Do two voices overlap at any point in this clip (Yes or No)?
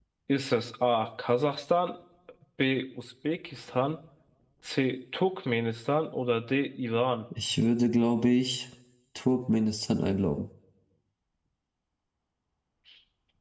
No